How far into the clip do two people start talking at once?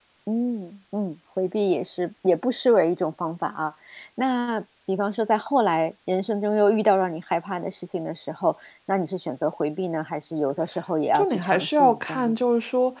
11.1 s

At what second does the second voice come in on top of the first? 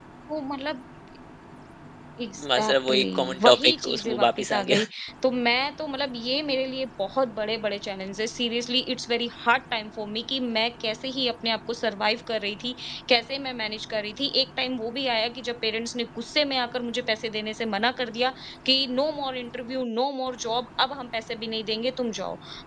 2.5 s

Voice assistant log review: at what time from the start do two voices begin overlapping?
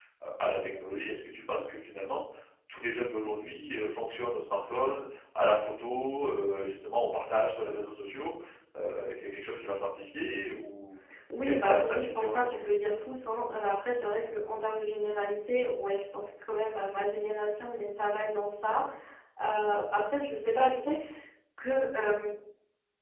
11.4 s

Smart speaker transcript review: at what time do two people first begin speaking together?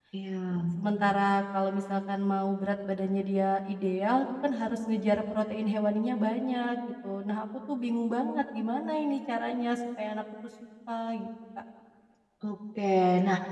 none

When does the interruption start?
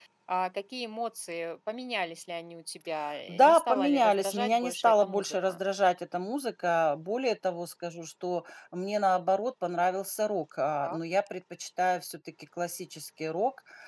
3.3 s

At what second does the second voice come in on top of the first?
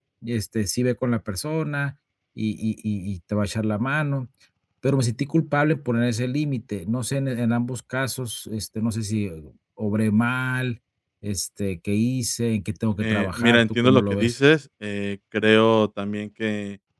13.0 s

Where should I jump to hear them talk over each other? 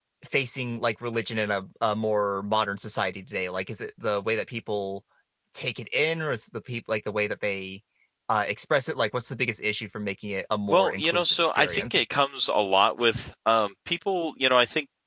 10.7 s

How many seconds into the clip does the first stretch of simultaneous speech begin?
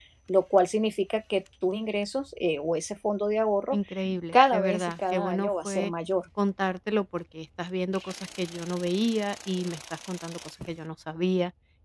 4.3 s

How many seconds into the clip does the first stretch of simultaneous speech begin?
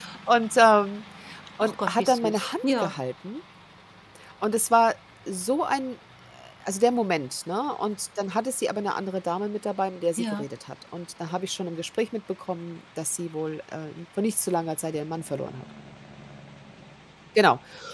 1.6 s

